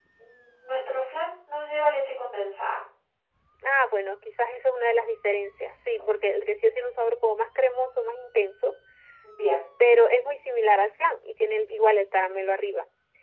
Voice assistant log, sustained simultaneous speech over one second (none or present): none